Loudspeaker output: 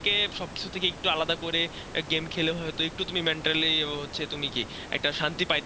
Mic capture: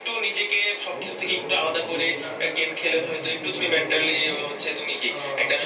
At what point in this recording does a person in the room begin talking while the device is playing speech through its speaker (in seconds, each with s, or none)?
0.9 s